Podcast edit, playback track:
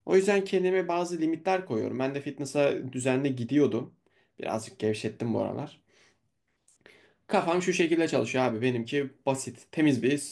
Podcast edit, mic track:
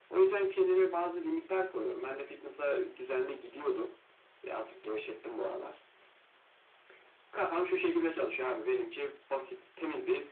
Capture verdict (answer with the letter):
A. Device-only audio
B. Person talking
A